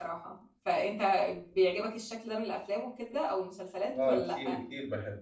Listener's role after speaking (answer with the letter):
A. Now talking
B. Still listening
A